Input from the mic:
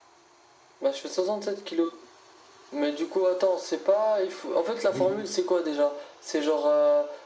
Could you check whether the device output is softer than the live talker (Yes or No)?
No